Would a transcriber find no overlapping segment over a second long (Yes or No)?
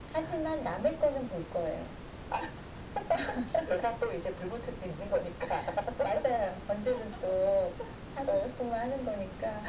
Yes